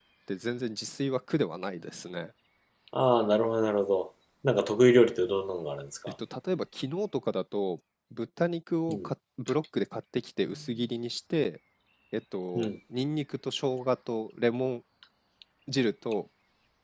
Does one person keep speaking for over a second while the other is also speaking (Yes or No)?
No